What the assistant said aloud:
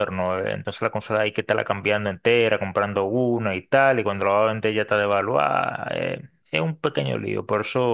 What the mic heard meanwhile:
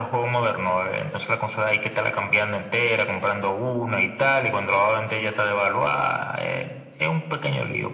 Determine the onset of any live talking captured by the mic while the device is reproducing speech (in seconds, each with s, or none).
none